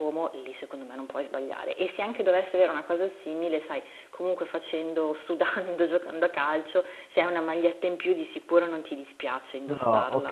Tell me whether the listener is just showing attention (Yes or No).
No